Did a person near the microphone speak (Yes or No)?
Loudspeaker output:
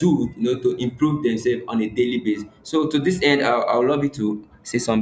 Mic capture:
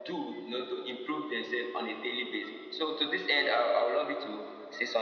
No